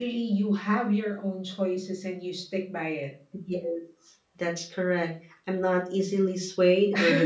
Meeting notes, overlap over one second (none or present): none